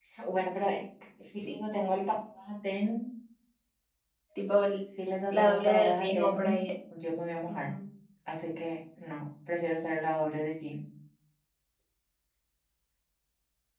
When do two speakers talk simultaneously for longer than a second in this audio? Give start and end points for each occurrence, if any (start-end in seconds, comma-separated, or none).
5.3-6.6